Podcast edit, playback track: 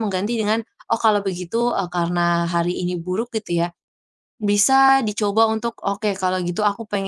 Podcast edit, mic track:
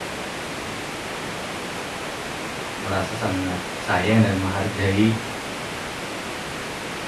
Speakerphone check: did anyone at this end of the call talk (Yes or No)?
Yes